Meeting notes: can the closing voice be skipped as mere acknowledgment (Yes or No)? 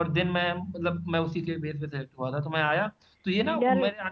Yes